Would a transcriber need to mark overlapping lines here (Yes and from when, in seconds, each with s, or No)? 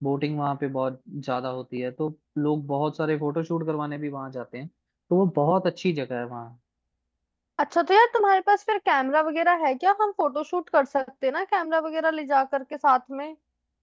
No